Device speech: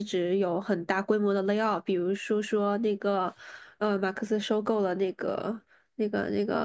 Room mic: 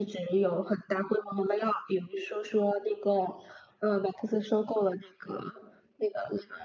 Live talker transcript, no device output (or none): none